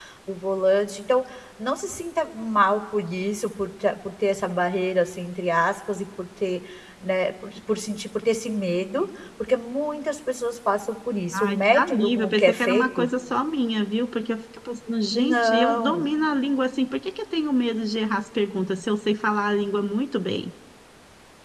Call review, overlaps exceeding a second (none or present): present